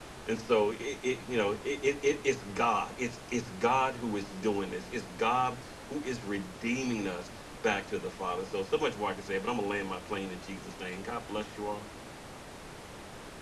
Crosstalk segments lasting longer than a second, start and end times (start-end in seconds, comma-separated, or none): none